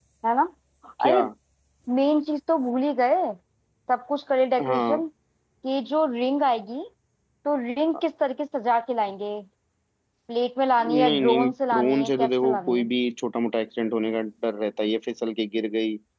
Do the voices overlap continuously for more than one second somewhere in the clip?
Yes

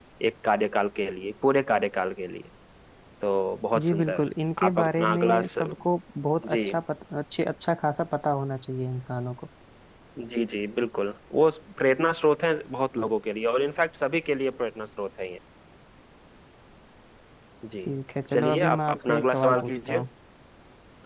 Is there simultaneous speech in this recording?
Yes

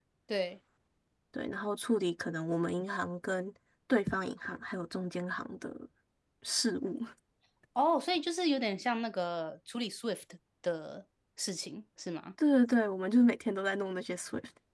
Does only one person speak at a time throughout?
Yes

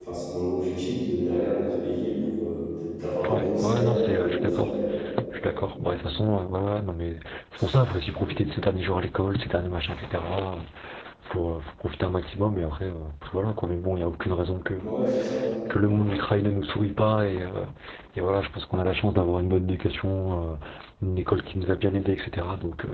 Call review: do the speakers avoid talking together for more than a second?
No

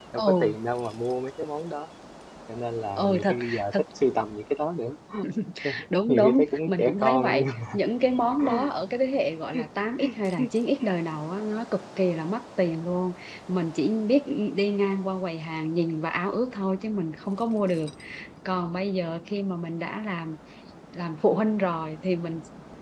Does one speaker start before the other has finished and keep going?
Yes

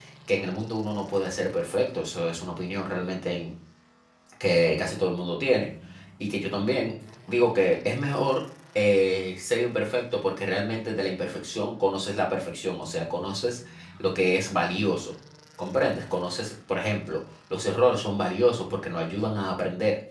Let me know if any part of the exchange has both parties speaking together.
No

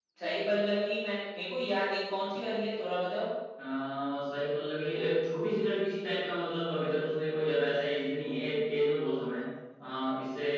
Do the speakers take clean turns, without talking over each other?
Yes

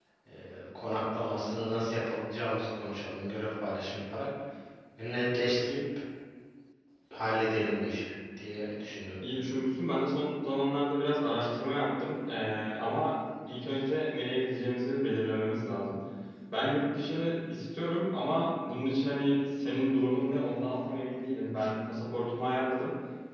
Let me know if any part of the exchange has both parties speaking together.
No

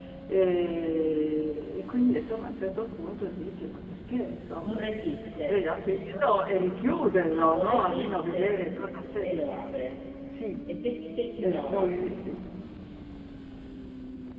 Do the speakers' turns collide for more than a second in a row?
Yes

